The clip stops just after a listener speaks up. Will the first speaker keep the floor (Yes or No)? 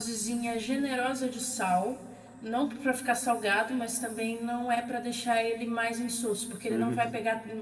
Yes